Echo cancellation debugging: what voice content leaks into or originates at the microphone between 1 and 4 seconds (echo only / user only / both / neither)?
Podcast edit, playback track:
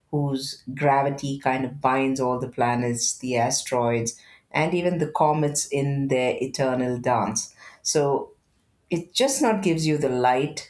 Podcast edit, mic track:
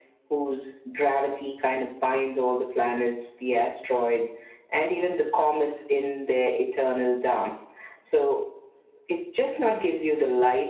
echo only